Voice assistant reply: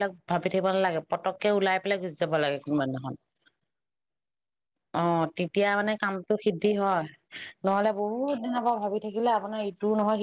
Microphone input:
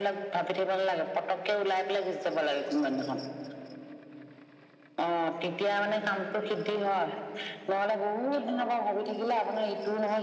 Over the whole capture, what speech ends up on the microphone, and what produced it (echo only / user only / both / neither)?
echo only